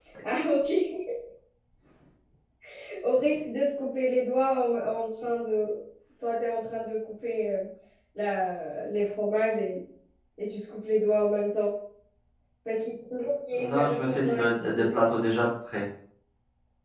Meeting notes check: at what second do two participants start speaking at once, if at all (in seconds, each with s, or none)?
13.5 s